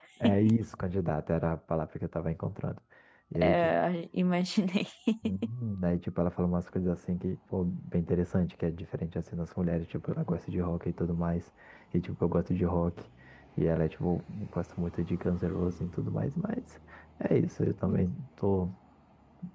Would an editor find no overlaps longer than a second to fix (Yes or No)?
Yes